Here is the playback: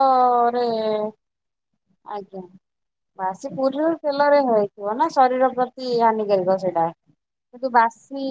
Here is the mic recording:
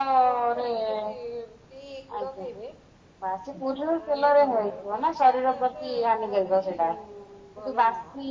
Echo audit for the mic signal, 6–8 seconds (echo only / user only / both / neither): both